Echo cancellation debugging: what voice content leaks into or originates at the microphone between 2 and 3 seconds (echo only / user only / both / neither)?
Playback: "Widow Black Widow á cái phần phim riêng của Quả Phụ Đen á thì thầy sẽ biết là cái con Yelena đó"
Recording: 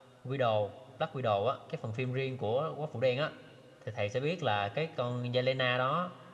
echo only